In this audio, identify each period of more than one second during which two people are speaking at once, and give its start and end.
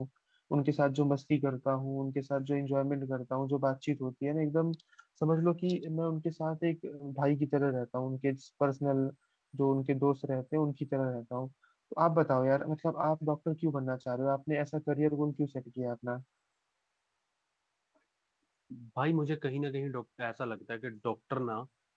none

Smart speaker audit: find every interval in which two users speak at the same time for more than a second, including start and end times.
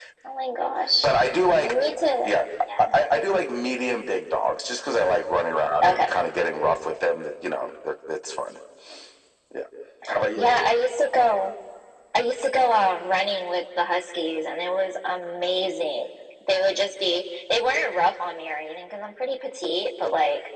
none

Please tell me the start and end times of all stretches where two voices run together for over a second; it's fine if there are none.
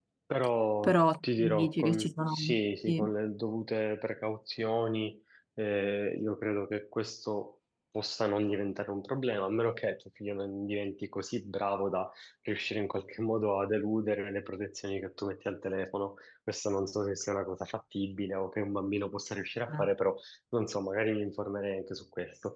0.8-2.4

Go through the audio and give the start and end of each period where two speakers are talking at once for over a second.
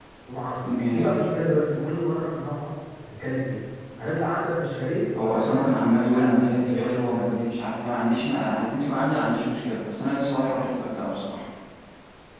5.2-7.3

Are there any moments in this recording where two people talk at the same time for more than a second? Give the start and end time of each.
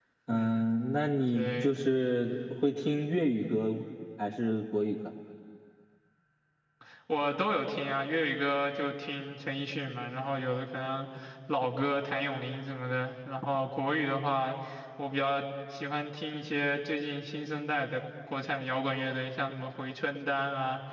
none

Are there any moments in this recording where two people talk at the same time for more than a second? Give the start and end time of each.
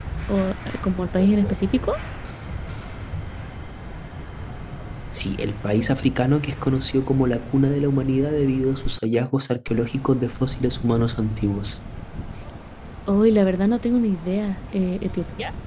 none

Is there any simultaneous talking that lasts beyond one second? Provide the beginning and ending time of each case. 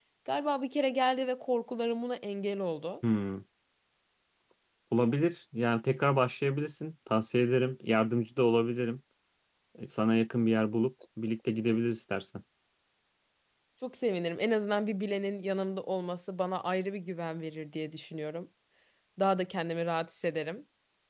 none

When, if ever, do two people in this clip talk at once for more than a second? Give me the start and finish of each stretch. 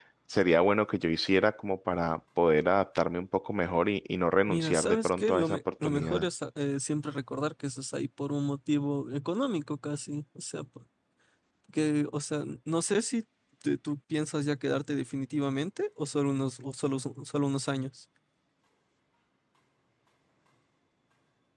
4.5-6.3

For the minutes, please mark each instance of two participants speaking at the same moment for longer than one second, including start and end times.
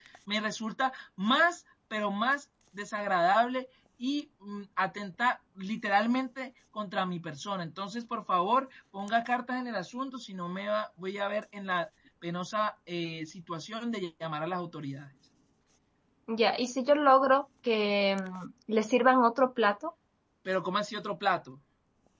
none

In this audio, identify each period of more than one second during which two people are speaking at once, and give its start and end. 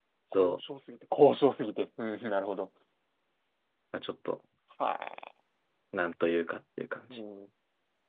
none

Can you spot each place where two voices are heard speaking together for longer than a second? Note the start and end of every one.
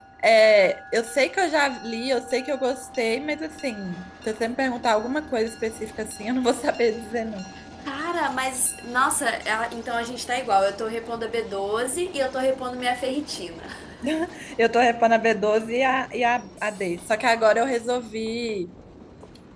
none

